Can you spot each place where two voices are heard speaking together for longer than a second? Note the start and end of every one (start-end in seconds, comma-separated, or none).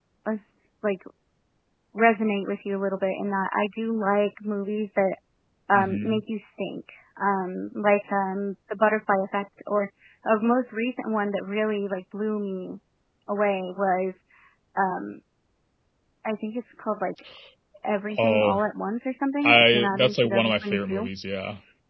19.4-21.1